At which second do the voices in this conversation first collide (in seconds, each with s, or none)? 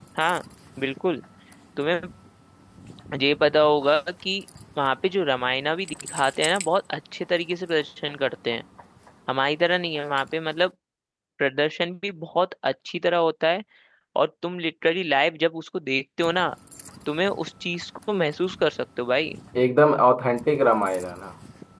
none